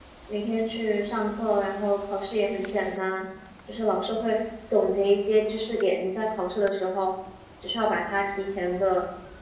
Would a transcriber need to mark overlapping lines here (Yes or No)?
No